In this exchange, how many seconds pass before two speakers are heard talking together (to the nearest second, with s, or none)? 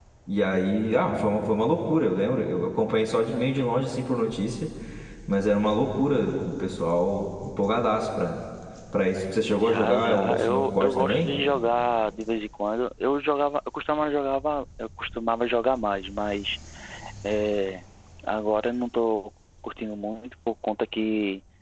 10 s